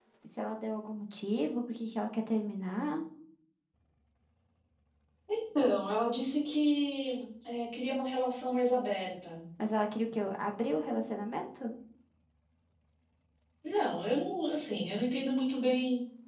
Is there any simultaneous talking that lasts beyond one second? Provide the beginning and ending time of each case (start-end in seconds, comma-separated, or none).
none